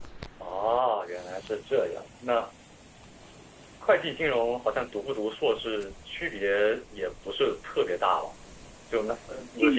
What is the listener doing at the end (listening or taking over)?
taking over